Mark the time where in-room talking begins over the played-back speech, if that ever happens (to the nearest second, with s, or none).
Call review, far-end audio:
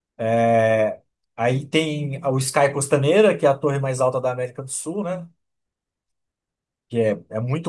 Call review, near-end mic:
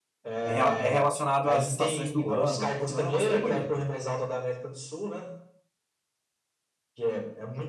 0 s